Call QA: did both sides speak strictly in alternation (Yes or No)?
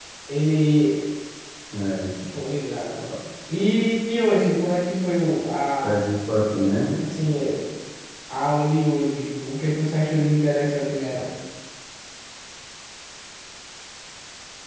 Yes